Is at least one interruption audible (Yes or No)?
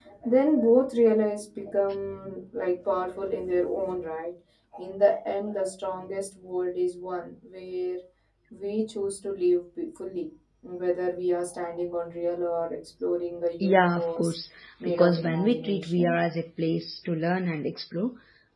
Yes